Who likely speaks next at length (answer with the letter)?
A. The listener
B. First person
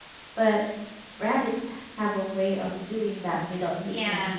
A